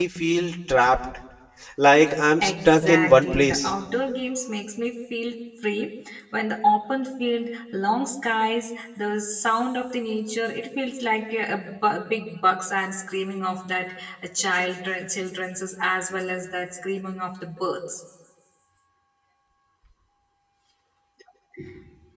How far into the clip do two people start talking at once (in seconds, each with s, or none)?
2.4 s